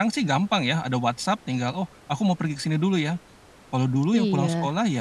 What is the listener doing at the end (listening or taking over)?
listening